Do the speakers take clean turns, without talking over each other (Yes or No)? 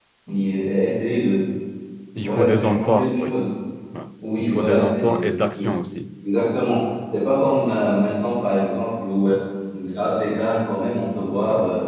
No